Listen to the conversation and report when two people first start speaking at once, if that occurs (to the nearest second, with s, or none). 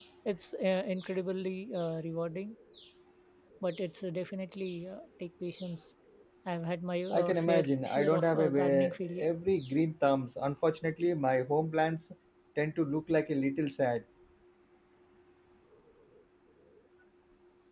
7 s